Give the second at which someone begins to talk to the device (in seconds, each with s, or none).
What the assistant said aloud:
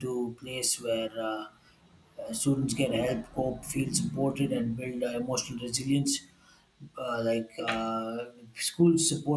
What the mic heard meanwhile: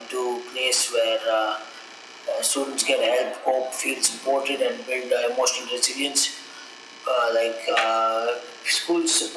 none